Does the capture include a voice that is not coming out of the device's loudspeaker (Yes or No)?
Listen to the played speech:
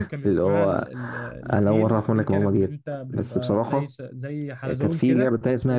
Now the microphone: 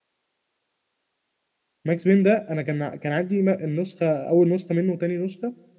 Yes